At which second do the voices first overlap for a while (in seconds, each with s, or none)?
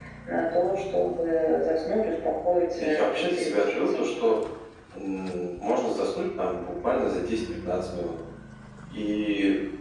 2.7 s